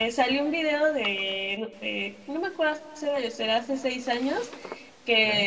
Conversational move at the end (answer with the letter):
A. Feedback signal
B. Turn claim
A